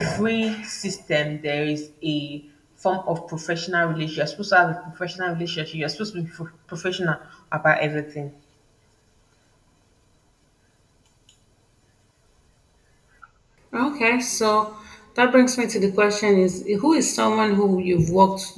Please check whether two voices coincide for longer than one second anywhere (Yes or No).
No